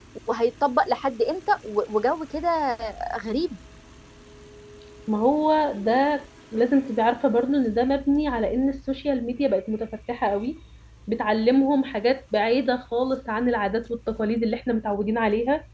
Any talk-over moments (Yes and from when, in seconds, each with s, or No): No